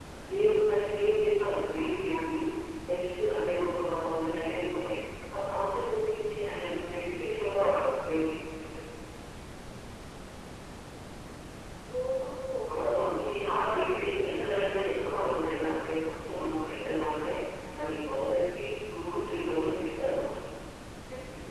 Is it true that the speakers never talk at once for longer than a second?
No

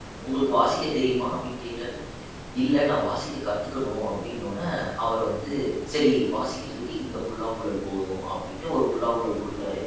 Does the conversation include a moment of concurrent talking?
No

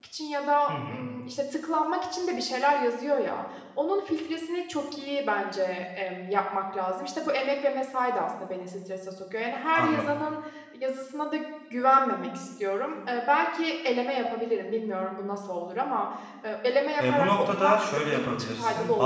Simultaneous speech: Yes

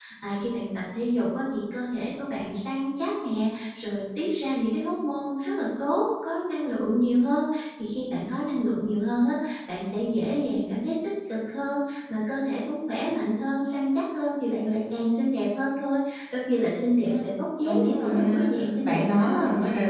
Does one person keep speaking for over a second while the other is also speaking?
Yes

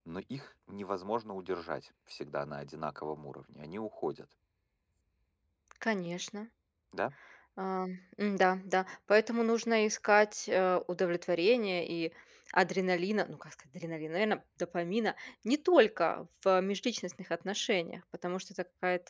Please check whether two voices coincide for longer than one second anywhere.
No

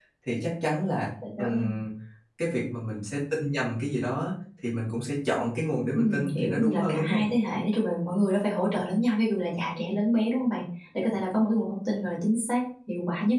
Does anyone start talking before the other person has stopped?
Yes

